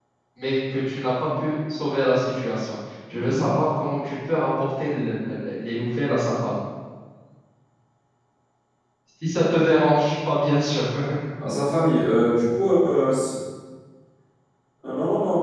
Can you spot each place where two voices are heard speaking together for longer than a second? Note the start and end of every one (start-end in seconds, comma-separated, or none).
none